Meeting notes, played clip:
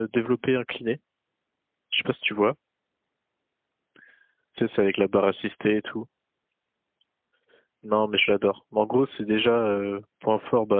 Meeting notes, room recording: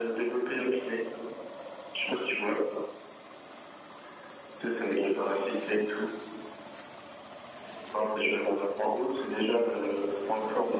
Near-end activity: none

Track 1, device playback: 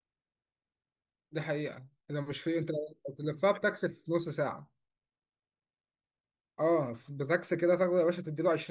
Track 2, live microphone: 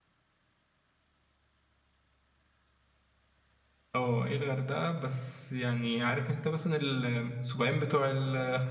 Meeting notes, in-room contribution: present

